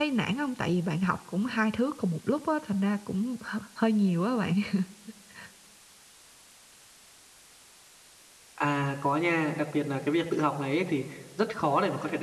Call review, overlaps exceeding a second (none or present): none